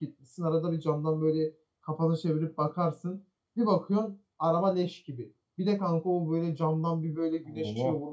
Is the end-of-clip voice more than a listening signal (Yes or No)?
No